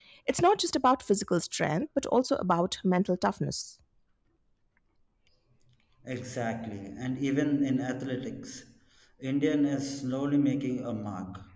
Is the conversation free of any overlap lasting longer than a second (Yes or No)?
Yes